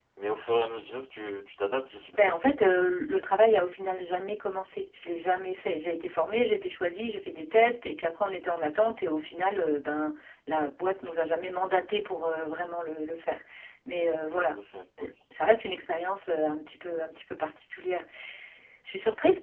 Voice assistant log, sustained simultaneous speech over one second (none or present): none